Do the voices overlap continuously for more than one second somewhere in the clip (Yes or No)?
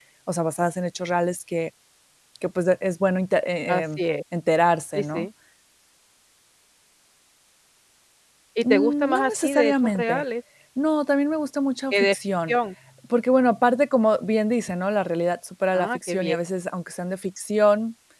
Yes